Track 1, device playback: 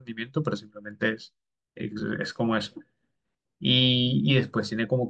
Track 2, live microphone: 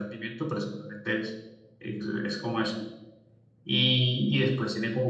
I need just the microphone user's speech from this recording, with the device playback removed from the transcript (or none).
none